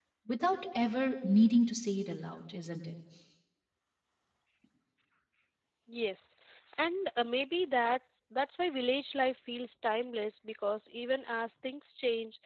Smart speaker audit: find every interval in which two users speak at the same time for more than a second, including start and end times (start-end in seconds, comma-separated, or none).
none